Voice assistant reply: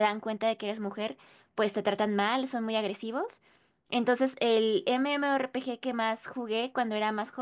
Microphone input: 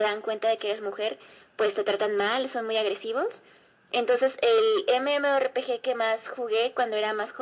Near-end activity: none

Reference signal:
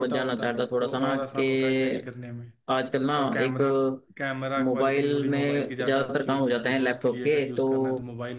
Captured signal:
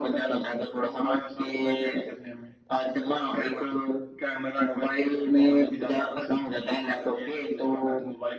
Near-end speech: none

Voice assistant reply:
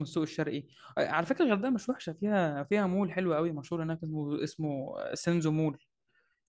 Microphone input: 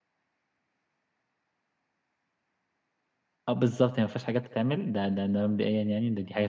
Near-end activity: present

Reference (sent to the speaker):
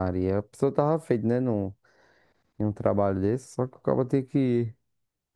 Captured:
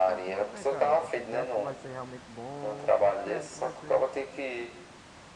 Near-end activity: present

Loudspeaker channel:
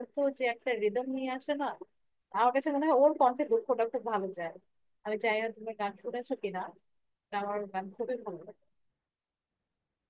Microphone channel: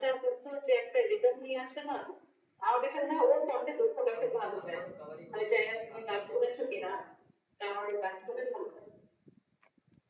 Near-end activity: present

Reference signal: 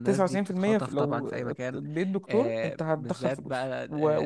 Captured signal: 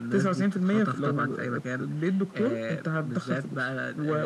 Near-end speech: none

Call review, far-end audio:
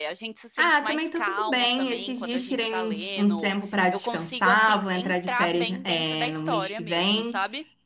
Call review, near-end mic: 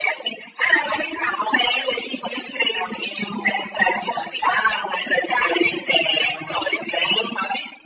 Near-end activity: none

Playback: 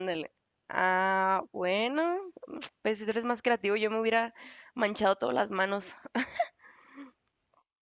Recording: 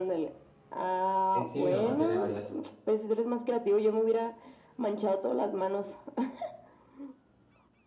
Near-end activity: present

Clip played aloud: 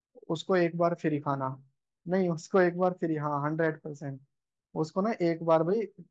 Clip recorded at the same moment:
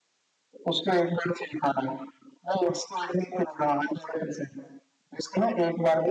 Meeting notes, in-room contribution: none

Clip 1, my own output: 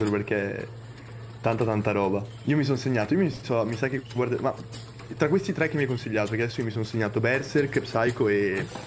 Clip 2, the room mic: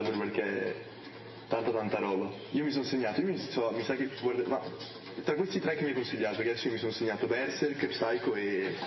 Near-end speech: none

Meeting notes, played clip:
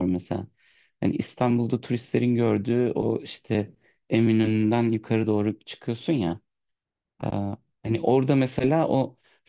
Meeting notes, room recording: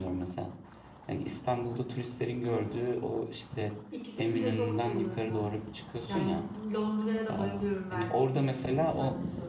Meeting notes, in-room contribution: present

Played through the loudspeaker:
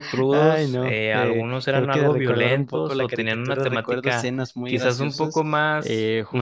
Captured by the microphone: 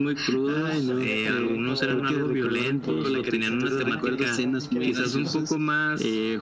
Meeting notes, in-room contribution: present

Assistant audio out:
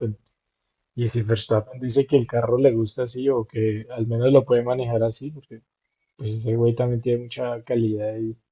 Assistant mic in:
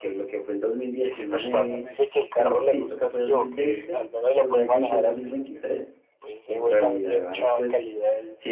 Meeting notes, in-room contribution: present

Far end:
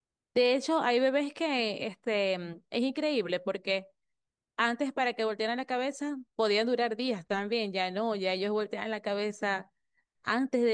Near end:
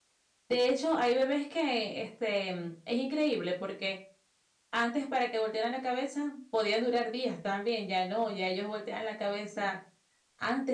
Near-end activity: none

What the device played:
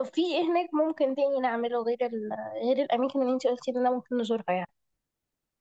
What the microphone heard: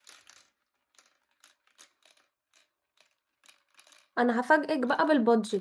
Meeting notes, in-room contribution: present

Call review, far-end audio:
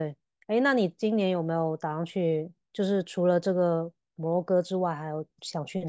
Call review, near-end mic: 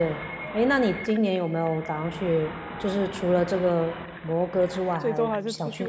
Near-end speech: present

